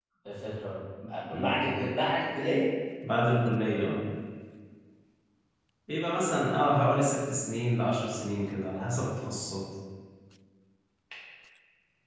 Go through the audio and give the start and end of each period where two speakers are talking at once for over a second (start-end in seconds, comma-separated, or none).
none